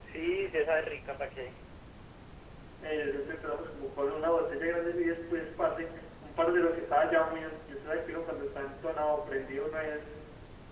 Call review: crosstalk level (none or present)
none